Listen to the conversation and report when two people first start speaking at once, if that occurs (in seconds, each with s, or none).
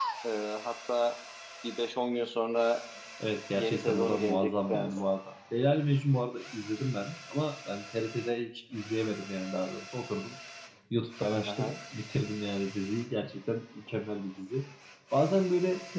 3.5 s